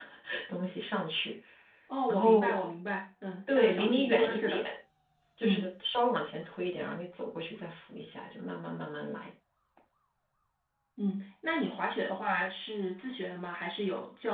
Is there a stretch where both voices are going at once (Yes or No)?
Yes